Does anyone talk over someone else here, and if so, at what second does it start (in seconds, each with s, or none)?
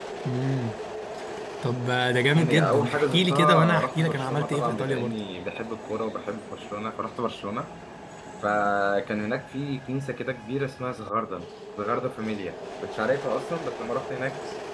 2.4 s